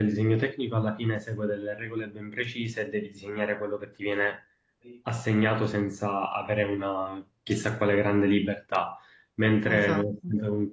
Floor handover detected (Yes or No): No